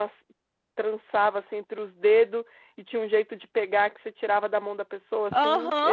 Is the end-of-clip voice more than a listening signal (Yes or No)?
Yes